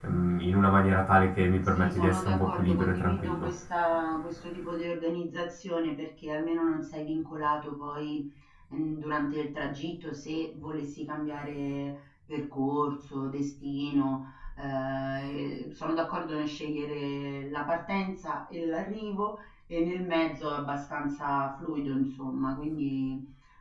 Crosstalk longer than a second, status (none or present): present